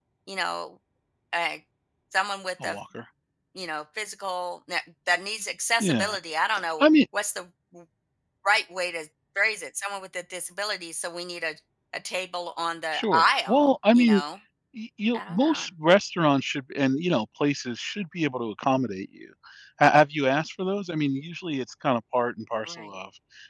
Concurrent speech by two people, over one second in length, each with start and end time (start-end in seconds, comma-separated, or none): 12.9-14.2